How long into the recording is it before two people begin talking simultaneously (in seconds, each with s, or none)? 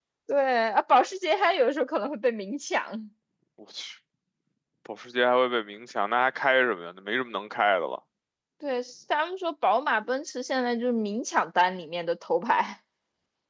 none